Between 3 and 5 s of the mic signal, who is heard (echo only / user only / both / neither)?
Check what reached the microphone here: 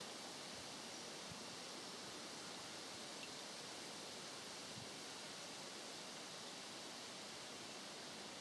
neither